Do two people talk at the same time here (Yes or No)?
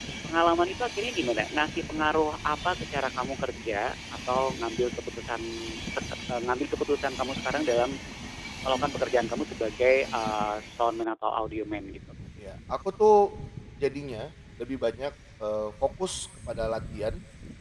No